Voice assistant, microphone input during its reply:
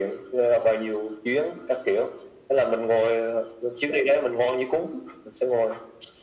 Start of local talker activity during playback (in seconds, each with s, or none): none